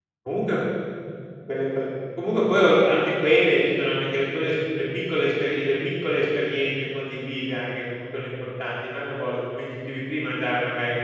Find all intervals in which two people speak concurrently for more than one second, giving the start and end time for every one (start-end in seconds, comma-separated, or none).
none